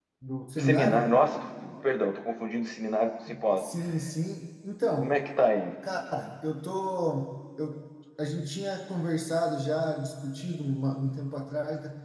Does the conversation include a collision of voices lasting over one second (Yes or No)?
No